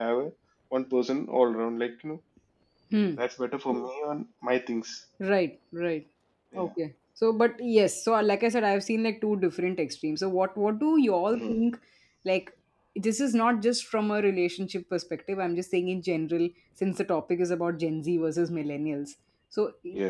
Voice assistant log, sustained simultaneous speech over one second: none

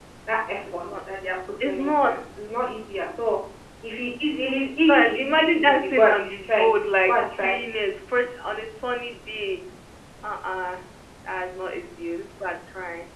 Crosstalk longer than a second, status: present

